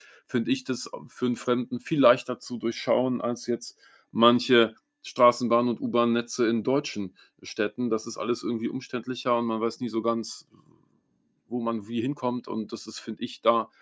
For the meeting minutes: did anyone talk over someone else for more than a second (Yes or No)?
No